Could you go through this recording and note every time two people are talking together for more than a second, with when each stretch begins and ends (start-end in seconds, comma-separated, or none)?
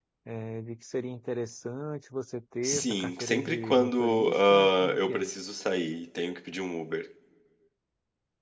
2.6-5.3